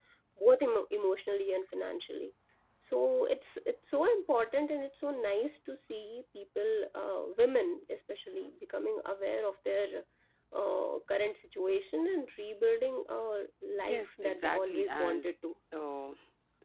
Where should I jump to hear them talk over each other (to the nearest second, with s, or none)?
14 s